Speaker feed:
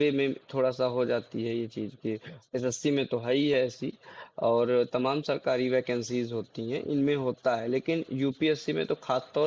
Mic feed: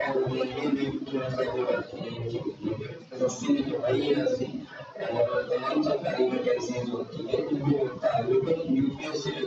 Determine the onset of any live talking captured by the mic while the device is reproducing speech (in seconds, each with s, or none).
none